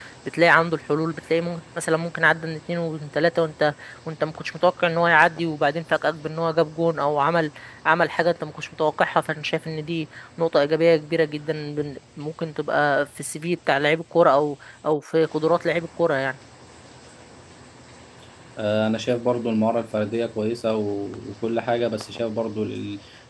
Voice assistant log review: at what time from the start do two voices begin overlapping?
none

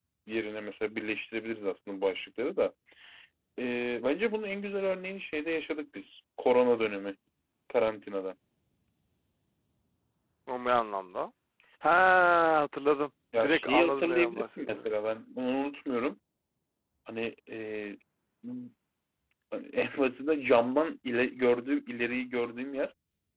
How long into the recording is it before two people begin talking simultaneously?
13.4 s

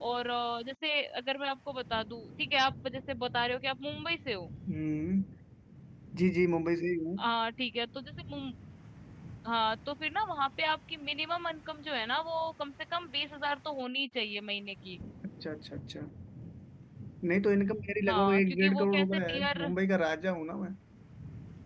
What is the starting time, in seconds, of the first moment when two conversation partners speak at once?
18.1 s

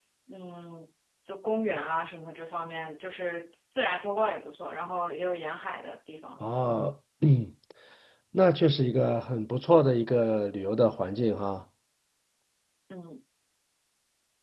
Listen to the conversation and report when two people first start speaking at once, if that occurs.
none

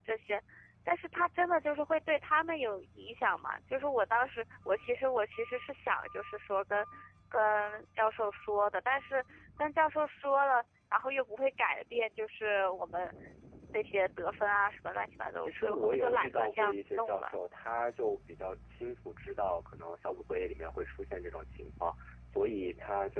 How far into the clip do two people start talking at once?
15.3 s

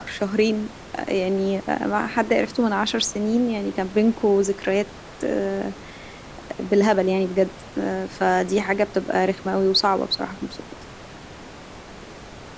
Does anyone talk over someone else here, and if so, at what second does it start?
none

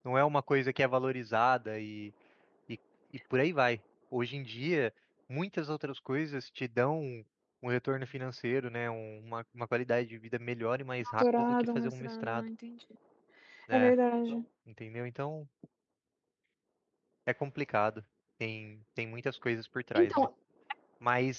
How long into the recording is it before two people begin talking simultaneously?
11.0 s

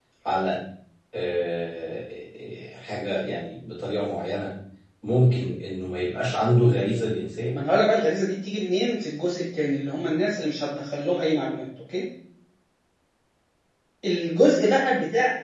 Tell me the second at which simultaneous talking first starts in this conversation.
none

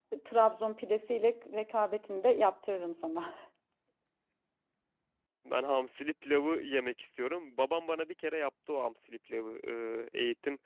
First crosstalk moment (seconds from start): none

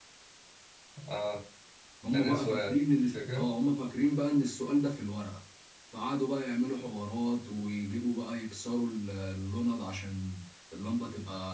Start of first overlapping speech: 2.1 s

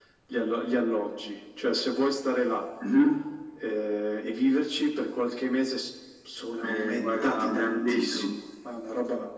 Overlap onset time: 6.6 s

